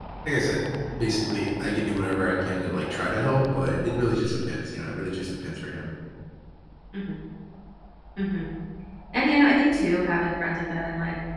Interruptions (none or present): none